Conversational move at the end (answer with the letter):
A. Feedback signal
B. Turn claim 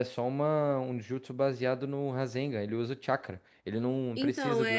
B